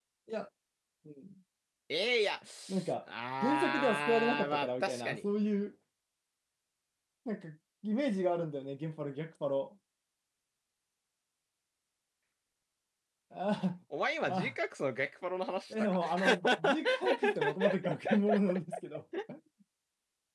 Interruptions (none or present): present